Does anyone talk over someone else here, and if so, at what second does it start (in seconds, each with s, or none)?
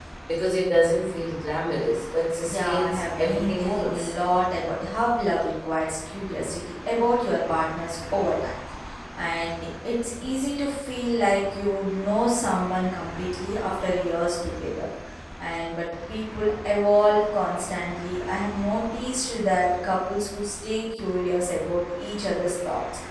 2.4 s